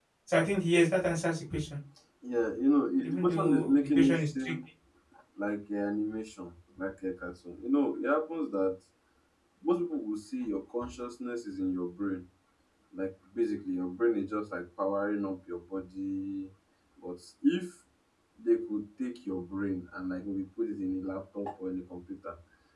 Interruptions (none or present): present